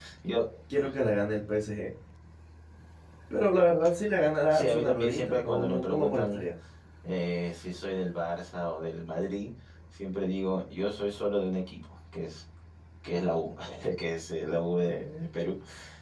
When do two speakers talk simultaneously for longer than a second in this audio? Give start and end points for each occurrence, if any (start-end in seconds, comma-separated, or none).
4.5-6.4